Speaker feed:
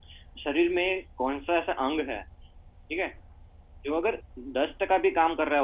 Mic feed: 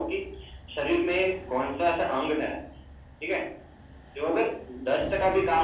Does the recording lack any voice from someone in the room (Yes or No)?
Yes